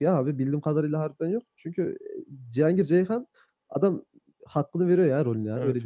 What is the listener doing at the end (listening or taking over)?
taking over